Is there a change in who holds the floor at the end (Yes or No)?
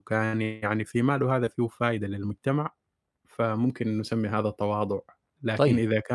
No